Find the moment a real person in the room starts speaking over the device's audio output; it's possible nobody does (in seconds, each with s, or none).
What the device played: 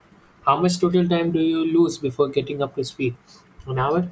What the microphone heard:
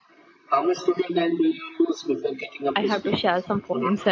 2.8 s